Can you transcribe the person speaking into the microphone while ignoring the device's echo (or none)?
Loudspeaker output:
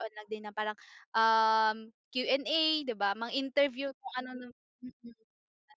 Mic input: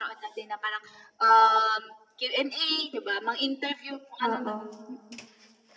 Oo.